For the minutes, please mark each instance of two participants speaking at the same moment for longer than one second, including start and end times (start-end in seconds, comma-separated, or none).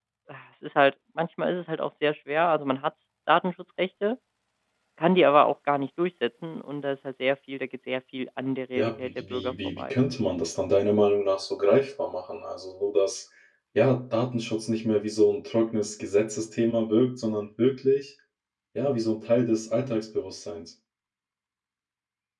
8.8-10.0